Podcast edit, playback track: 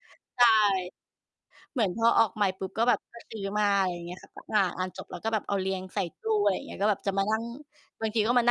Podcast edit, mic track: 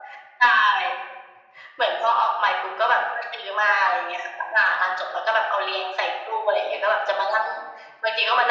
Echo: present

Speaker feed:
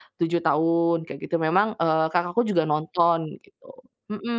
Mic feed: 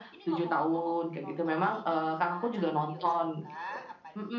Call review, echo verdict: present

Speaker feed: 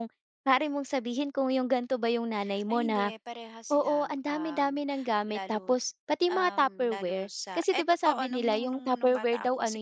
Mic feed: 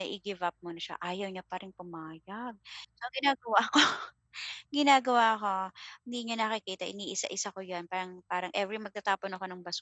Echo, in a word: none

